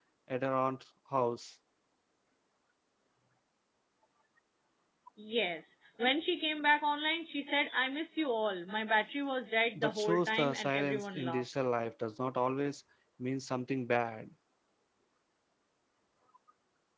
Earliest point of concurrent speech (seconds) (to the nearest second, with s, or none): 10 s